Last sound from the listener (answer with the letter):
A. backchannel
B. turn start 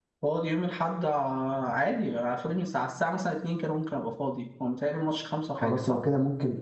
B